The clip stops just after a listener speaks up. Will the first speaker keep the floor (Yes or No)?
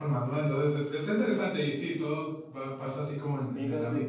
No